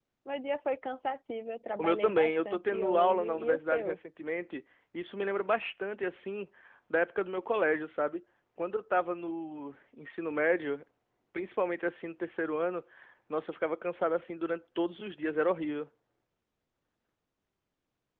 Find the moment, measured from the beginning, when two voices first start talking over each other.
1.8 s

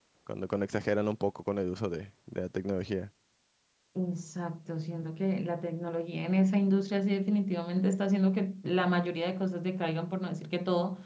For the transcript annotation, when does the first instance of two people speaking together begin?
none

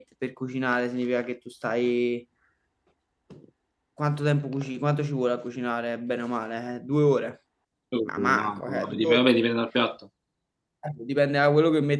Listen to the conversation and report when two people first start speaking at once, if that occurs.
8.0 s

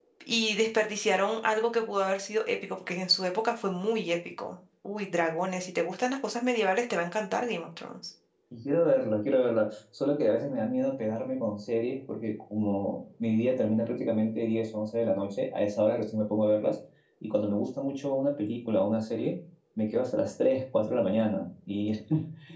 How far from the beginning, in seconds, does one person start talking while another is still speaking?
none

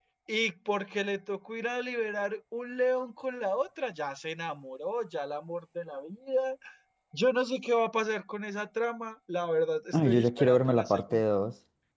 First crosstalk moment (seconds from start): 9.9 s

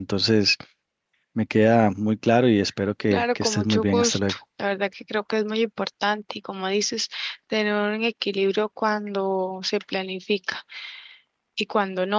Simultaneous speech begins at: 3.1 s

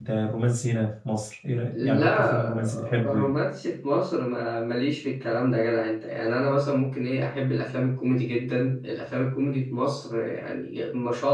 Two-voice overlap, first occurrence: 1.7 s

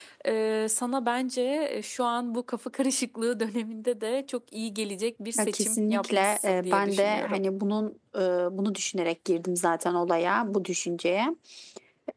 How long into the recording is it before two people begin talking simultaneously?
5.4 s

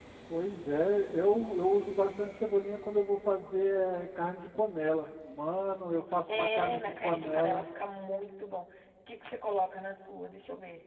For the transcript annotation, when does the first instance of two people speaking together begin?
6.3 s

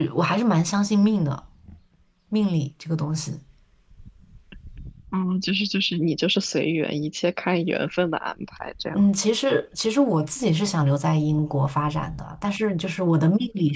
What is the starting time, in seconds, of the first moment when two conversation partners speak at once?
none

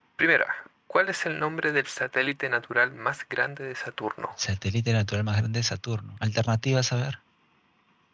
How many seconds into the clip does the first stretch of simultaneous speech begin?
none

